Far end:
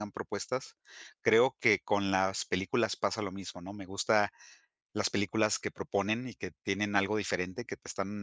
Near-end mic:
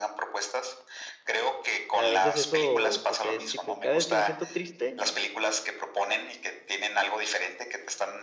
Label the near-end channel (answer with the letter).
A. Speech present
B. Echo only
A